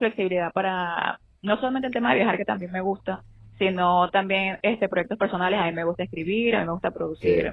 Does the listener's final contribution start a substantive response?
No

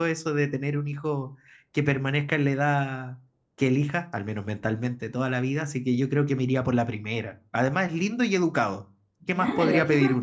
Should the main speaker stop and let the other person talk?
Yes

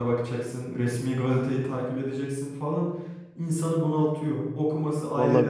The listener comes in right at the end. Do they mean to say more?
No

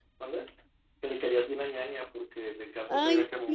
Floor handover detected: Yes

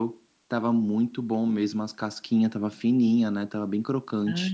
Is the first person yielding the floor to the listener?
Yes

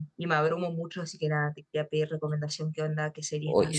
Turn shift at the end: Yes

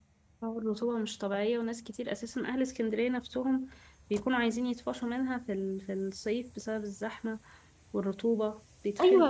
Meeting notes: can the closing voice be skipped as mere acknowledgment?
No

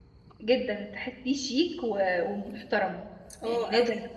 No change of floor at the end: Yes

